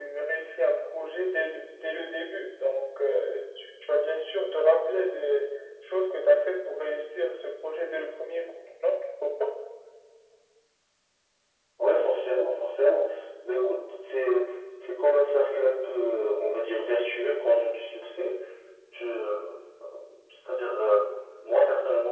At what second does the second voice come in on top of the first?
none

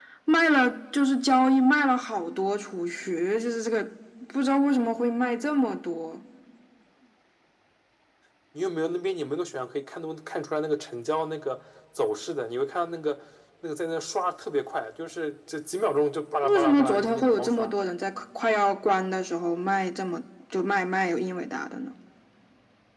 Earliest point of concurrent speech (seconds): 16.4 s

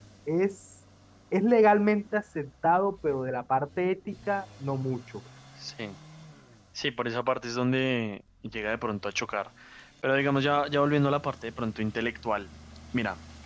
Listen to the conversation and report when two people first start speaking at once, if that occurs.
none

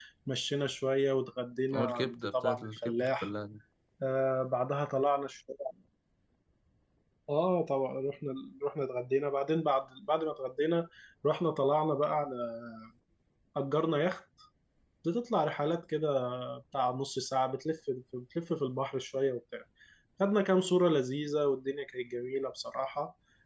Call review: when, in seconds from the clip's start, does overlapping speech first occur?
1.7 s

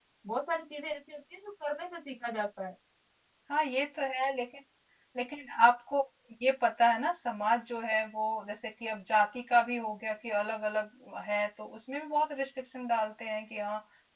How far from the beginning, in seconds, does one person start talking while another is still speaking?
none

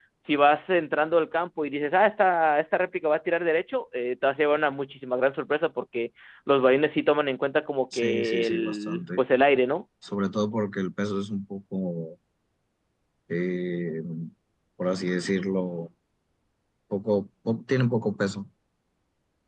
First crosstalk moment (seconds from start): 7.9 s

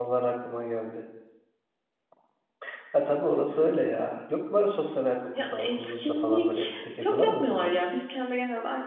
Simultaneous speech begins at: 5.3 s

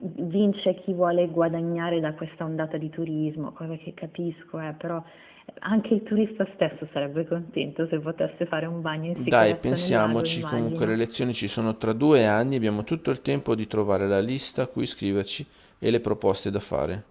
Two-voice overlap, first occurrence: 9.2 s

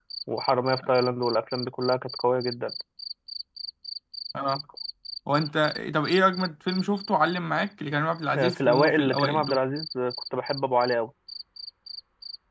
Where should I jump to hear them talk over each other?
8.3 s

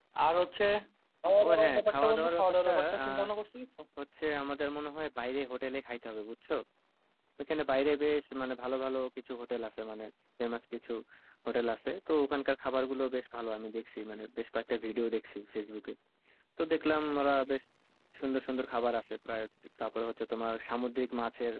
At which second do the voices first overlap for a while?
1.4 s

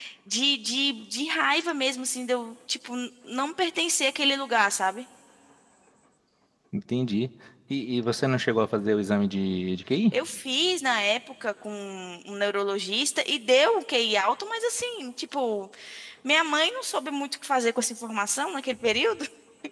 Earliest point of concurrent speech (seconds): none

